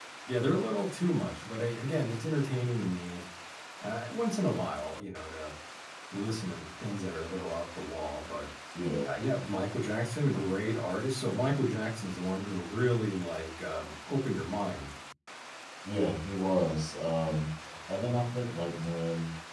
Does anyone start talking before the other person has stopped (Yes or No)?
No